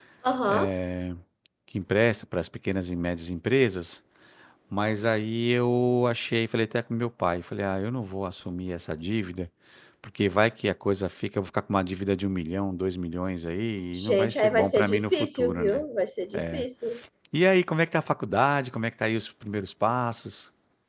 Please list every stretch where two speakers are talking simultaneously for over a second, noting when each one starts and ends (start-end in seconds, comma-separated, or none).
13.9-15.8